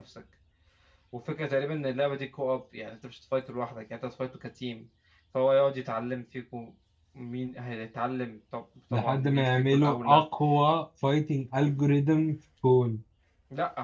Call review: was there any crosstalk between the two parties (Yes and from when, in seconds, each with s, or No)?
Yes, from 8.9 s